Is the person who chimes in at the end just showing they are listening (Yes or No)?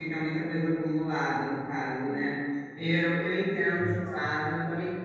Yes